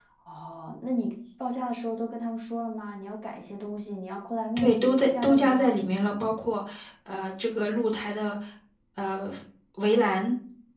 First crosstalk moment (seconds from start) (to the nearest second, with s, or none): 5 s